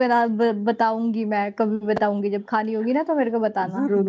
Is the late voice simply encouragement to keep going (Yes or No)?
No